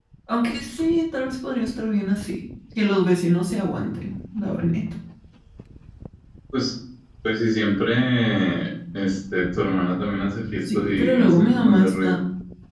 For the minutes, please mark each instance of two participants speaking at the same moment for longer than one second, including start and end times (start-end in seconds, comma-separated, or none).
10.7-12.2